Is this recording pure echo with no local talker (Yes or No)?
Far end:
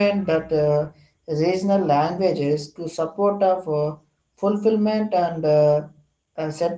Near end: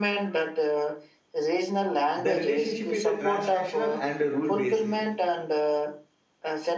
No